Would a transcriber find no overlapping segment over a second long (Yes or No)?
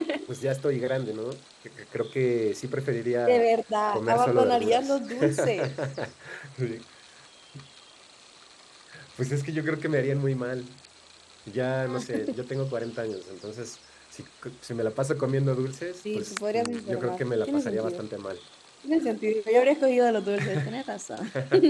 No